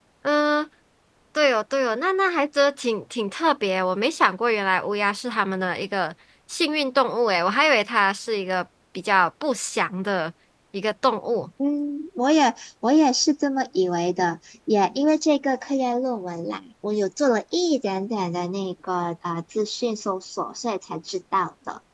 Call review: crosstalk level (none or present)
none